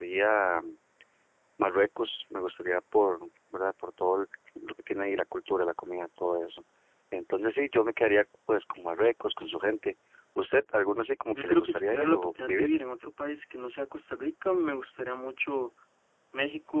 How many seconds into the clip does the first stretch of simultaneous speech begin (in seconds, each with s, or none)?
11.3 s